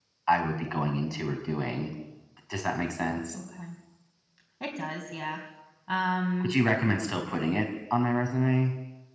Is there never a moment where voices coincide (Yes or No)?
Yes